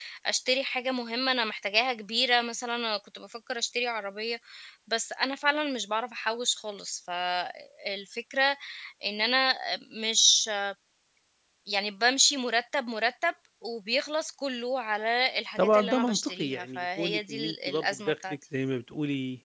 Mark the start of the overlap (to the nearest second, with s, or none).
16 s